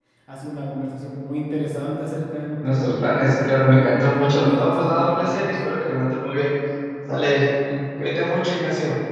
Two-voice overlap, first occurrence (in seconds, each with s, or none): 2.6 s